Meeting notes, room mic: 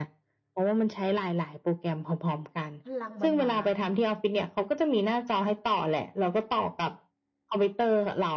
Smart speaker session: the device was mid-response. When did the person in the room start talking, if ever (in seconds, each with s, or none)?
2.8 s